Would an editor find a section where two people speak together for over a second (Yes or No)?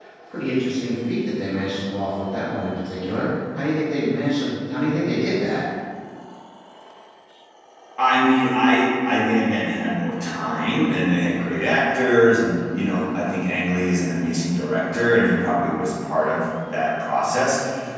No